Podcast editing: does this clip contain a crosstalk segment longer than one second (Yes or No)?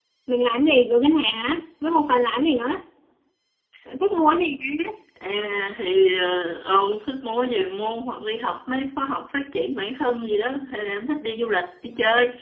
No